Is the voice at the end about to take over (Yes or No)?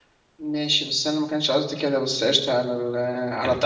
No